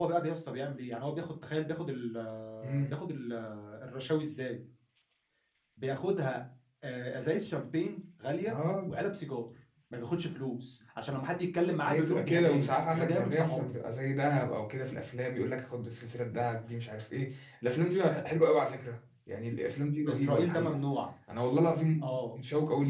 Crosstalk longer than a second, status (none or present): present